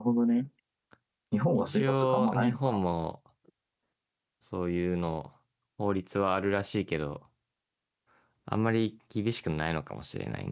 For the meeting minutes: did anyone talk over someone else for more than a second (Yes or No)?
Yes